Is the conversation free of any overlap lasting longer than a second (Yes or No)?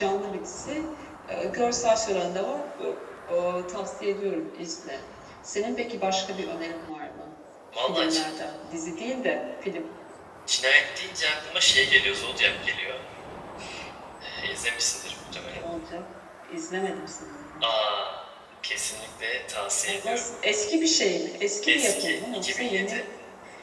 No